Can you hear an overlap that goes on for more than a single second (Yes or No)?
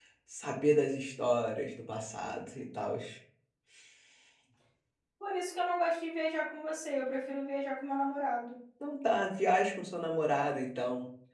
No